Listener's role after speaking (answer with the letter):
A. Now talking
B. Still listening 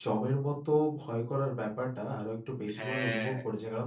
B